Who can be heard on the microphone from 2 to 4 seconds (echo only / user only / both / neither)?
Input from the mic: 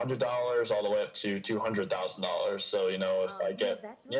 both